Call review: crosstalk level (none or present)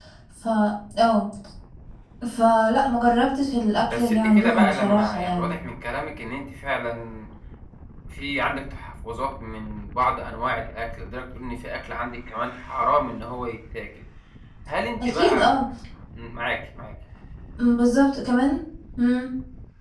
present